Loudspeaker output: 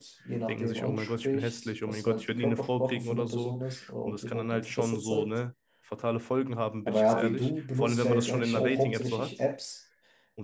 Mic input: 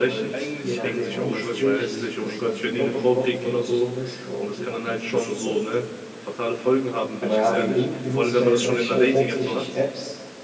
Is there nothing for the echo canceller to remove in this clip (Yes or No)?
No